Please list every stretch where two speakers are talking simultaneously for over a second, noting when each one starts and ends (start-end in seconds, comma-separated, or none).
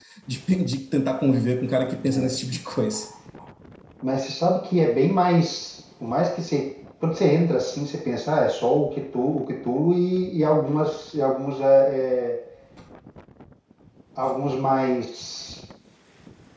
none